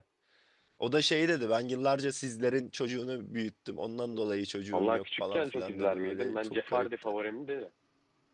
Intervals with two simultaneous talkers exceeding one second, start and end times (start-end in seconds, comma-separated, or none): 4.7-7.1